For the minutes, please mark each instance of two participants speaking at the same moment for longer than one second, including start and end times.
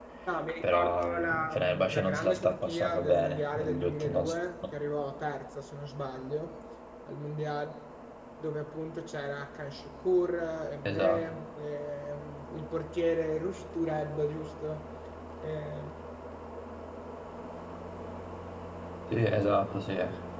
0.6-4.3

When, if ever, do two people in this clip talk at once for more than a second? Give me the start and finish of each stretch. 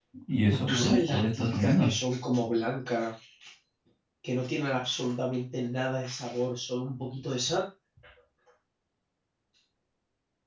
0.7-1.9

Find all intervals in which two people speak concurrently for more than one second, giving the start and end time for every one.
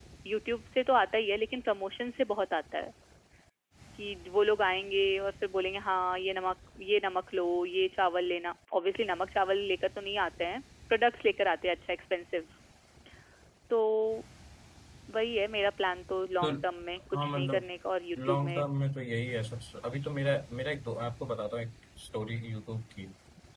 none

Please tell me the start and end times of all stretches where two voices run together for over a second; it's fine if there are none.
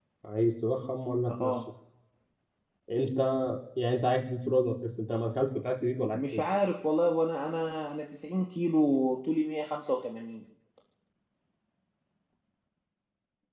none

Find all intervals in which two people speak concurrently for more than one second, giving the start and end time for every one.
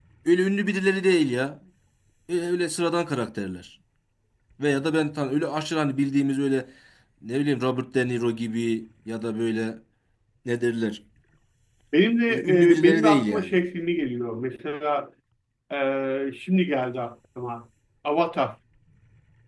12.3-13.6

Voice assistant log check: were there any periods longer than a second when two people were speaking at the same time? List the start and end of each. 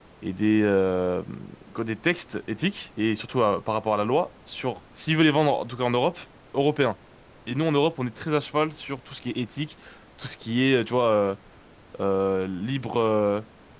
none

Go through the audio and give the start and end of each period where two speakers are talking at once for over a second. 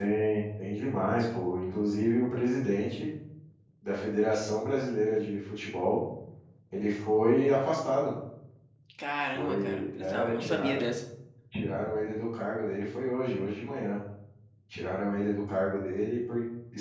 9.3-10.8

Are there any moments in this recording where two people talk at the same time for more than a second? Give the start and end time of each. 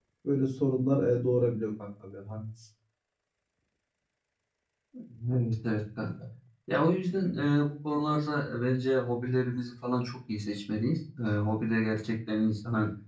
none

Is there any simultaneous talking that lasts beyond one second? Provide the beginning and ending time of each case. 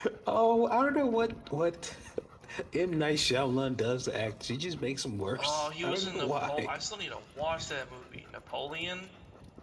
5.3-6.7

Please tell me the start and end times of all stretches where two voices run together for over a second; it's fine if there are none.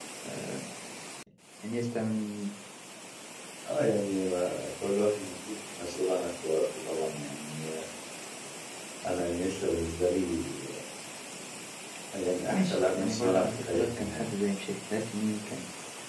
12.5-14.3

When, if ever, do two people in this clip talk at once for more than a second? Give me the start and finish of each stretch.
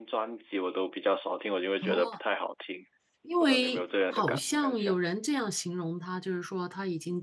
3.4-4.9

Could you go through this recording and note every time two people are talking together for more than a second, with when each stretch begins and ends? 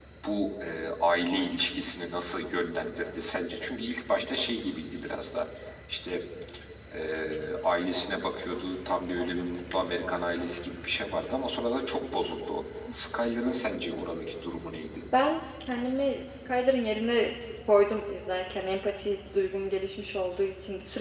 none

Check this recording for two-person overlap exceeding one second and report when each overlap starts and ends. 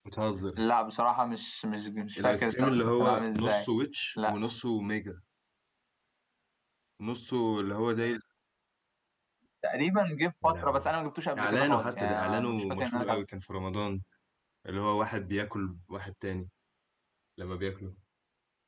2.2-3.7, 11.4-13.2

